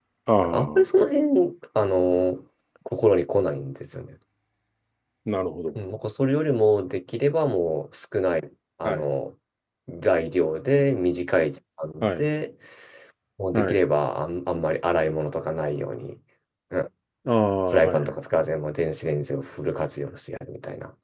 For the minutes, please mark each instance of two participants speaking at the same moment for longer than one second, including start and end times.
none

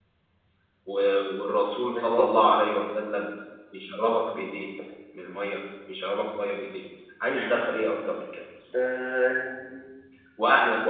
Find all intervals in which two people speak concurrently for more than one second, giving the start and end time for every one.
1.9-3.2

